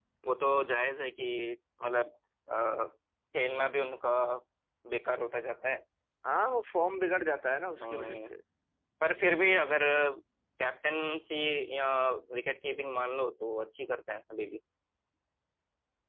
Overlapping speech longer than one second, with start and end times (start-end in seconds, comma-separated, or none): none